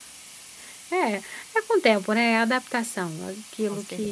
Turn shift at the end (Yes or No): No